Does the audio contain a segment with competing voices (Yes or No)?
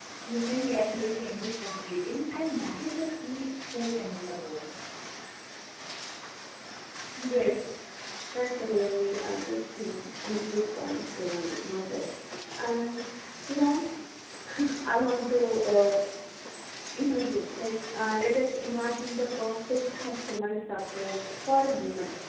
No